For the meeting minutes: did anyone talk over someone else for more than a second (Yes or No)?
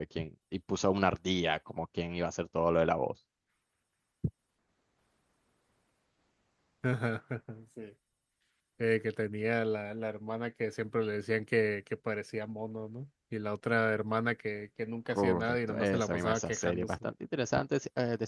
Yes